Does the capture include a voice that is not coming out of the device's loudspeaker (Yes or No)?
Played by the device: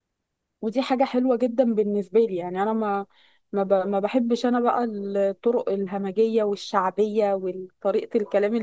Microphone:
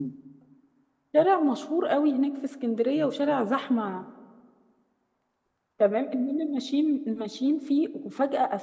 Yes